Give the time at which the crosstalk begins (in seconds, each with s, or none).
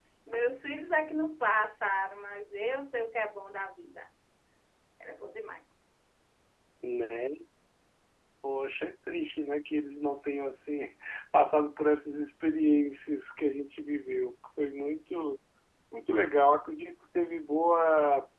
none